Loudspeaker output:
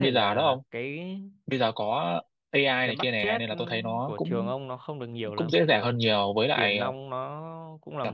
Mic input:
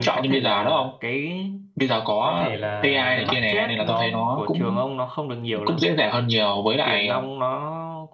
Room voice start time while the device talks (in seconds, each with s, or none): 2.2 s